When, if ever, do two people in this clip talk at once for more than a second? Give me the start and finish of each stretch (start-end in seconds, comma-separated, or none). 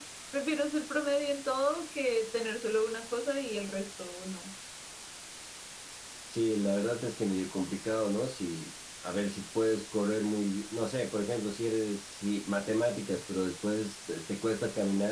none